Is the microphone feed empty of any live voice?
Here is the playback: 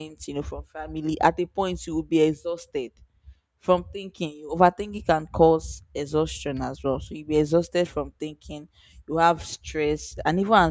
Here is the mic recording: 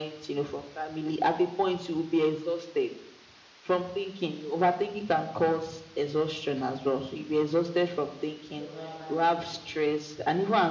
No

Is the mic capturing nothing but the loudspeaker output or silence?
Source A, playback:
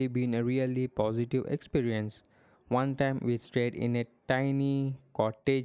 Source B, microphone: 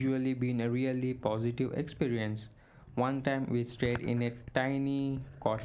Yes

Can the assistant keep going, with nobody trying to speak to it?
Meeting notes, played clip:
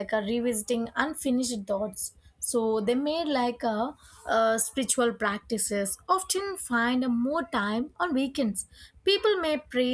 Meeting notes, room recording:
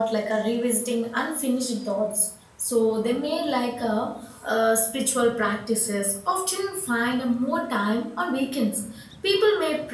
Yes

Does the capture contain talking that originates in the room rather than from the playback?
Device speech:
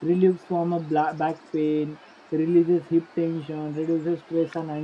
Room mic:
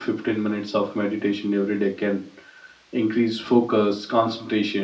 Yes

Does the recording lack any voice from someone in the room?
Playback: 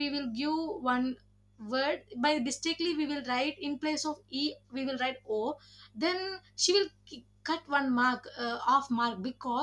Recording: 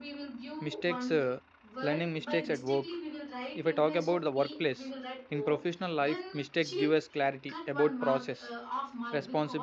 No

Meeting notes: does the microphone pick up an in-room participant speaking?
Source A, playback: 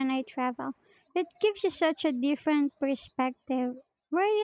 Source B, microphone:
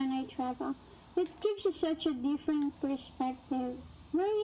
No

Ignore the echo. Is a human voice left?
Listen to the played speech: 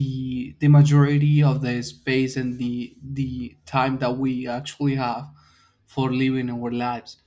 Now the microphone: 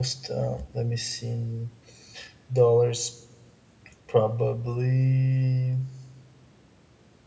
Yes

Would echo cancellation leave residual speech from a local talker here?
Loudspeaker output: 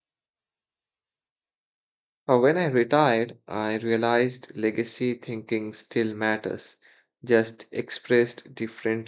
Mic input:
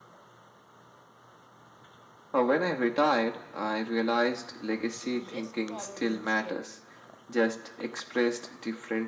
Yes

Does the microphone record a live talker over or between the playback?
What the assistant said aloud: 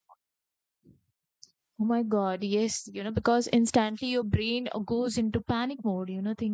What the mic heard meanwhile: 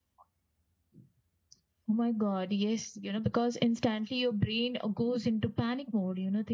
No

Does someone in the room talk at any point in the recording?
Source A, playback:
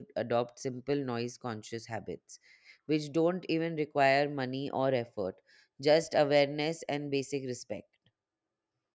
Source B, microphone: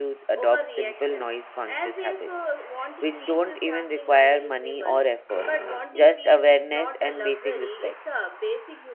Yes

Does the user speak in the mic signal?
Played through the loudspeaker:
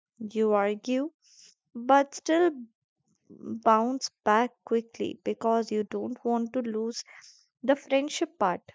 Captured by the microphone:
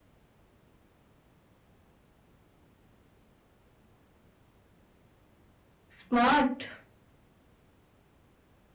Yes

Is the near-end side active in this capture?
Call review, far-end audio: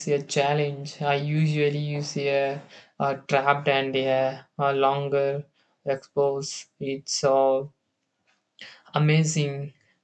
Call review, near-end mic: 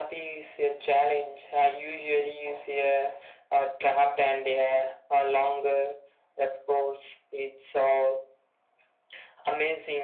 No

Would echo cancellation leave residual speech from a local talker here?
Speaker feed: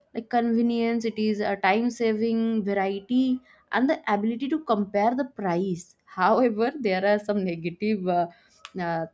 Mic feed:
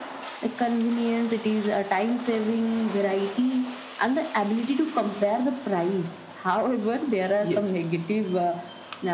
Yes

